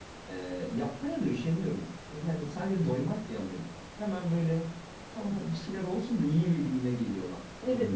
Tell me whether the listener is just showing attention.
No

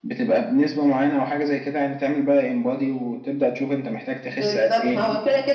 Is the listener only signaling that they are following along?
No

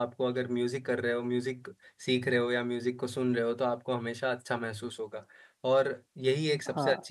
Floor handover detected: No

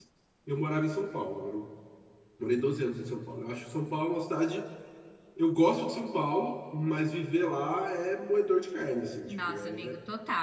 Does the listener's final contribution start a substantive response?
Yes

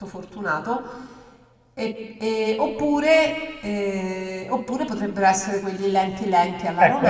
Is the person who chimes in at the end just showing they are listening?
No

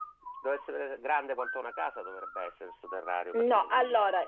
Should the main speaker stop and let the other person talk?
Yes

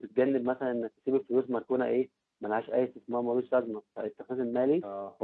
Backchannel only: Yes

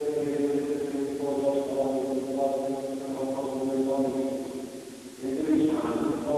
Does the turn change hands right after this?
No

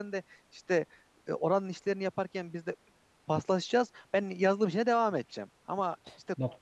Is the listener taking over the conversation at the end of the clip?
No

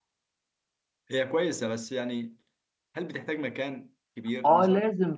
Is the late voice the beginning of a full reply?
Yes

